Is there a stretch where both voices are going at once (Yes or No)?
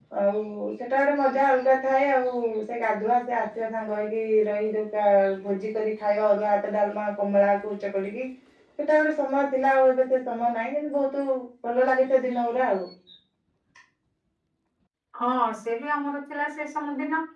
No